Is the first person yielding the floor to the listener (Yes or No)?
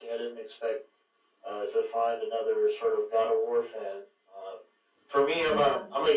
No